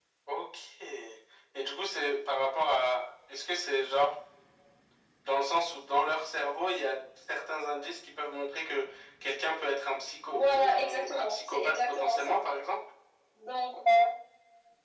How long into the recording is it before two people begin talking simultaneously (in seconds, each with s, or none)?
10.3 s